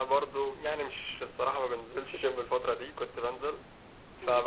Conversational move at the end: listening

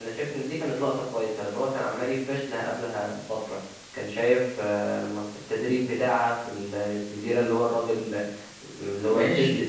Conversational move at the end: taking over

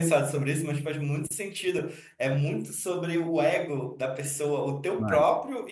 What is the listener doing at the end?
listening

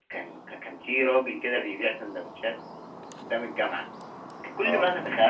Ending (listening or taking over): listening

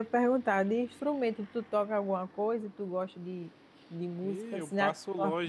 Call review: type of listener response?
taking over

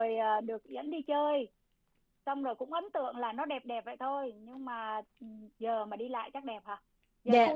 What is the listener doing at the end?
taking over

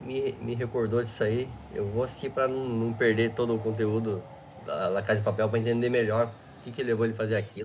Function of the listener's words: taking over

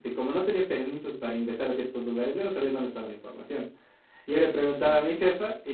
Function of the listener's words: listening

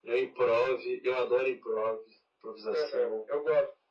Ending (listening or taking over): taking over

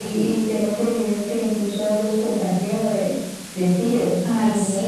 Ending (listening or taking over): taking over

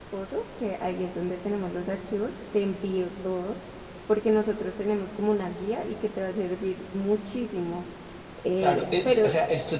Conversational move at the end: taking over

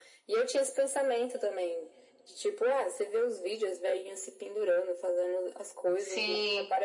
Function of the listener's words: listening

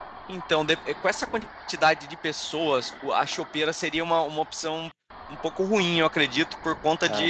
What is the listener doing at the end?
listening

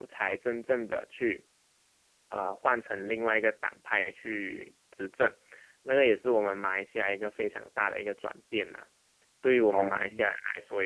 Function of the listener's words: listening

